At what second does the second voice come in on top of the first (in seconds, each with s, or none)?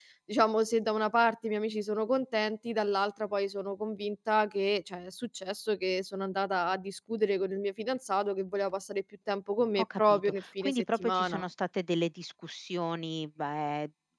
9.8 s